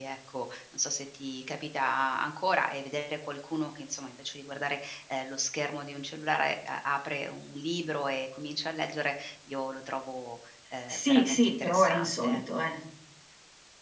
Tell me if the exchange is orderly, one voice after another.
No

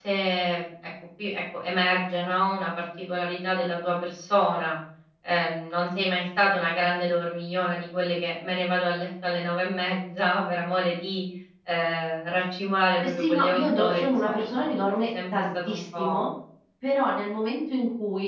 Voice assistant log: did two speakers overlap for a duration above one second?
Yes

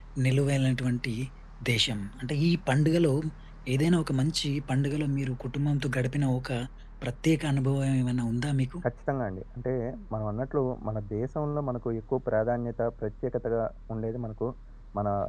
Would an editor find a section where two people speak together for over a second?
No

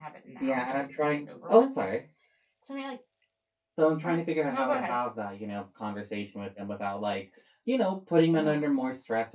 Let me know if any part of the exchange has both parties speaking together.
Yes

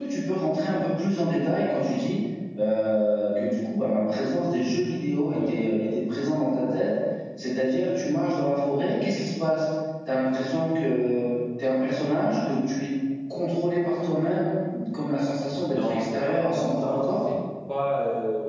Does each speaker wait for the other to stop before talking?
No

